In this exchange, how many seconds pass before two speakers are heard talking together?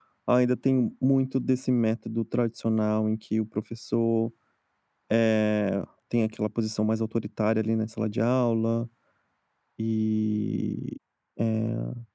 none

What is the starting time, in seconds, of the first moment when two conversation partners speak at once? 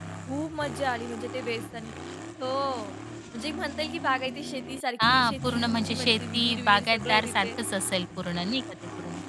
5.0 s

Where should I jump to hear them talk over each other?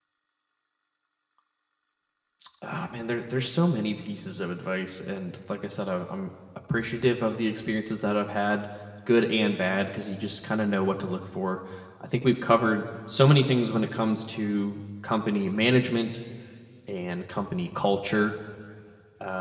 none

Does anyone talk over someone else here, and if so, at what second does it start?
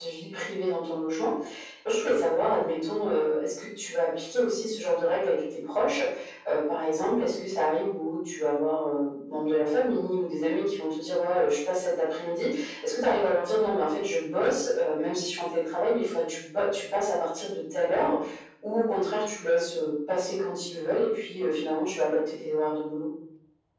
none

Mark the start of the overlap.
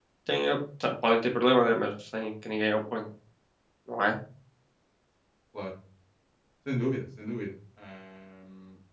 none

